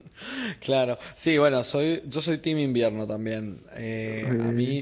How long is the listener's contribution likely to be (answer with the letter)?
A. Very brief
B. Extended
A